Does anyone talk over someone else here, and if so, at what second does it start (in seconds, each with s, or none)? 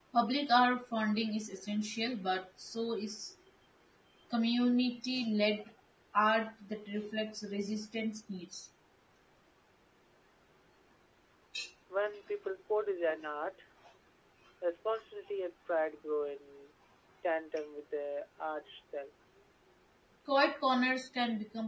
none